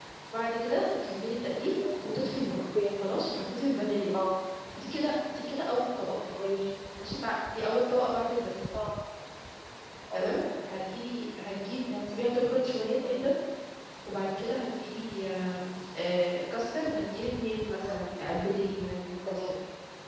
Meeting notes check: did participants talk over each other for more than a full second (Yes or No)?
No